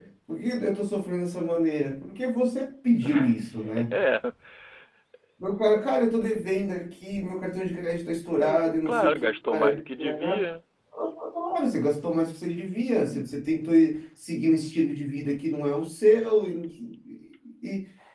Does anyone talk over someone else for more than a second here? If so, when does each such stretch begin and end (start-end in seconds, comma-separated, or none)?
8.4-10.4